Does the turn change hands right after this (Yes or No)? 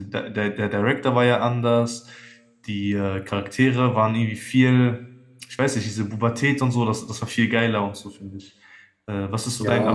Yes